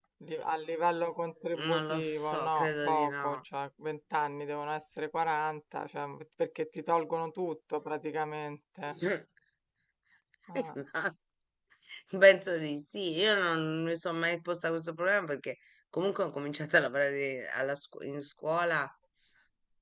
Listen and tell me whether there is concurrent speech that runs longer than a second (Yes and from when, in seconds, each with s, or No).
Yes, from 1.5 s